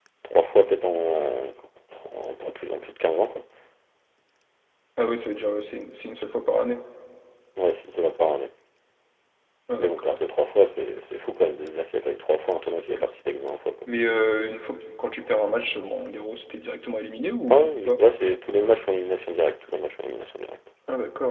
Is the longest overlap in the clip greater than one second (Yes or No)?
No